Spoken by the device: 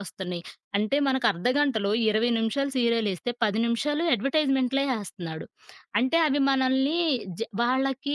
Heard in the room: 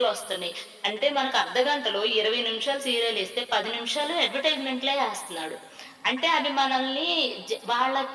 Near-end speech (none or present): none